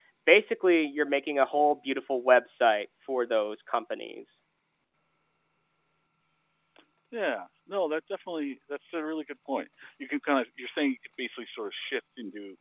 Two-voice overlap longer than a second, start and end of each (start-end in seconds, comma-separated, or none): none